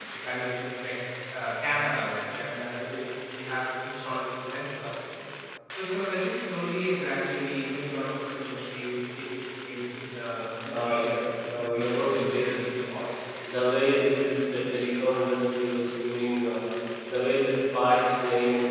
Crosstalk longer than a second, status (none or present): present